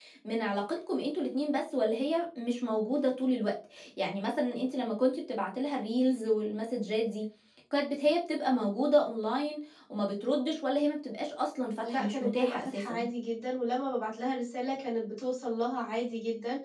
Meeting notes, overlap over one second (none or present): present